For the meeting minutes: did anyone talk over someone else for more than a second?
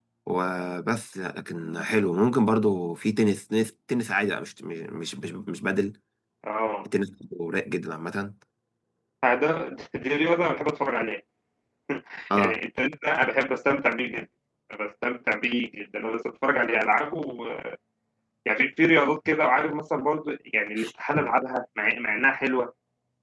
No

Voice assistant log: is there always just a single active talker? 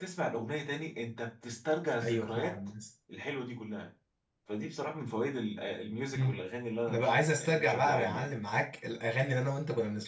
No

